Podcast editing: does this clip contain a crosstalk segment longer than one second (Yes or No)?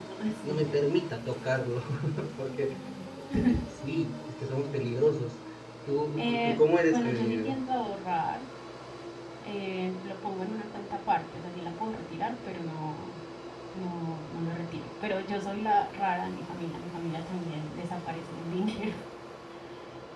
Yes